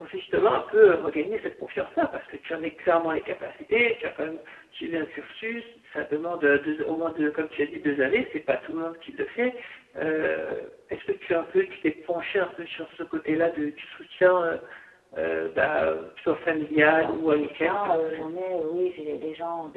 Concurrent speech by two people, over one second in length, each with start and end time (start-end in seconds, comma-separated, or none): 16.8-18.3